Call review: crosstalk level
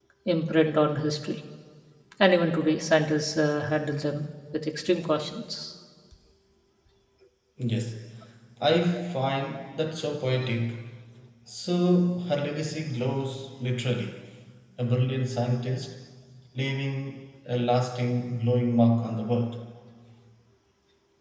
none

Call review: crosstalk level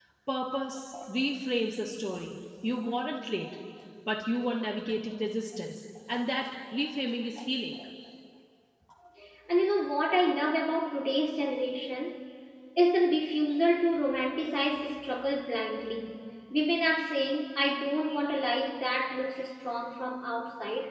none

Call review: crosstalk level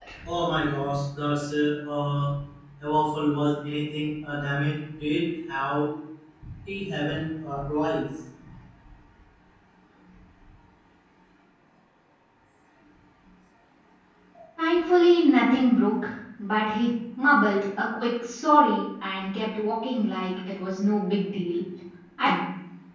none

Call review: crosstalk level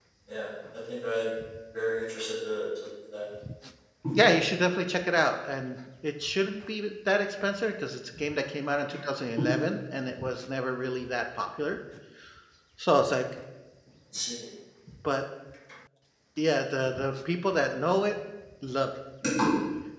none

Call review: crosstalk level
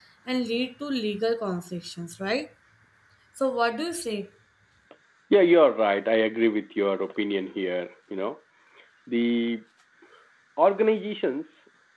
none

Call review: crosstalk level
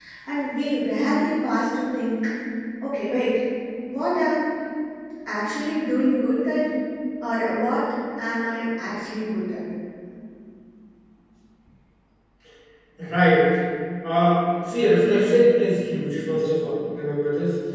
none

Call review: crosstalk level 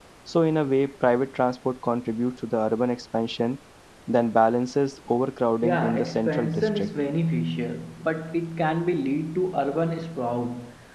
present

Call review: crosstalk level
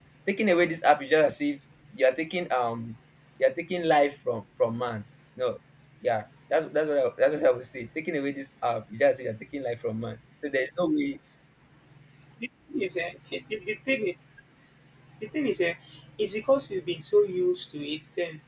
none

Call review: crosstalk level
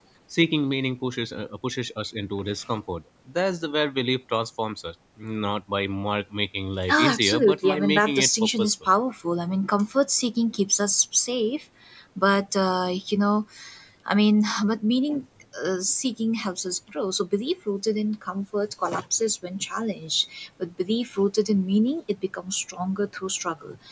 present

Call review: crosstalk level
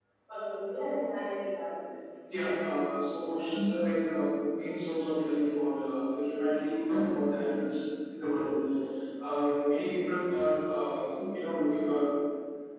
none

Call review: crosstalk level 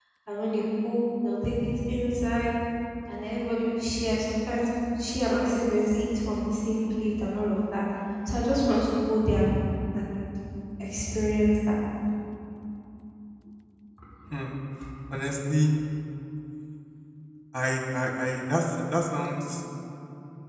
none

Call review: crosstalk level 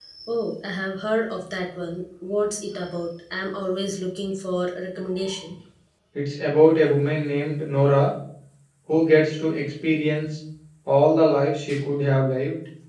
none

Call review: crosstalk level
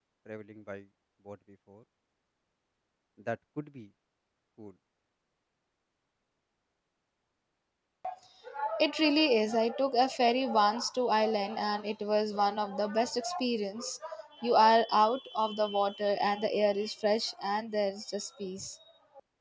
none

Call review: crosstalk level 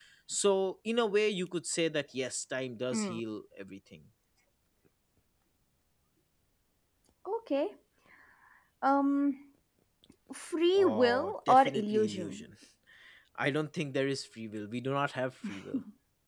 present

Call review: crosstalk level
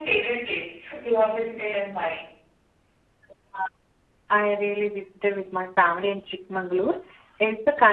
none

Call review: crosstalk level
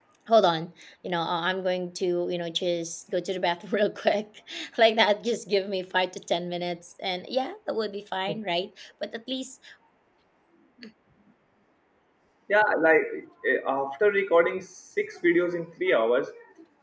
none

